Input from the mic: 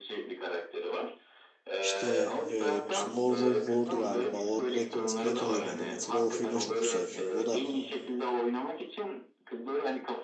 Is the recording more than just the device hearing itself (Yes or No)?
Yes